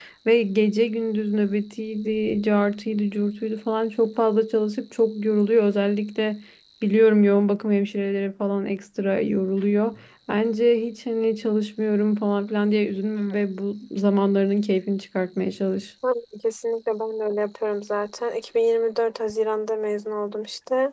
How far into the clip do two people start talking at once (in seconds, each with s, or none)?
none